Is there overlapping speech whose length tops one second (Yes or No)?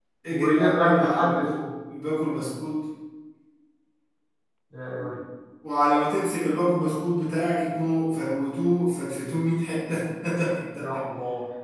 Yes